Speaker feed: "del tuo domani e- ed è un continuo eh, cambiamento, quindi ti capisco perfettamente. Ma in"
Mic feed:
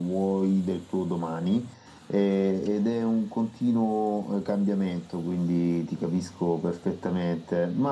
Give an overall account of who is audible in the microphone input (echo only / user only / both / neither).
echo only